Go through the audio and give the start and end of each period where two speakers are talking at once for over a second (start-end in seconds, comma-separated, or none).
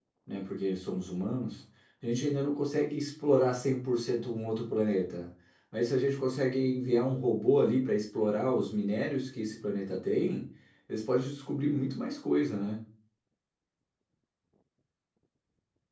none